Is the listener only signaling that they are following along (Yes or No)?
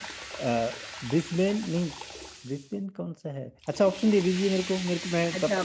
No